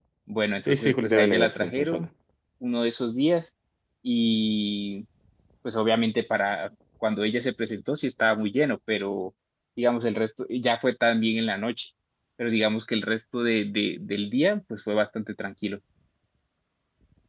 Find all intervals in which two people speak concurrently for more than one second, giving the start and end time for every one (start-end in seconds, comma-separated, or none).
0.6-2.1